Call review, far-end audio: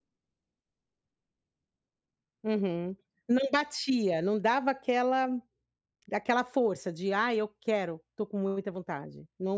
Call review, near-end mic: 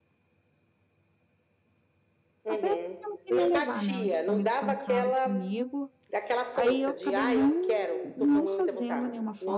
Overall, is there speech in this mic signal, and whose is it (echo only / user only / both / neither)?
both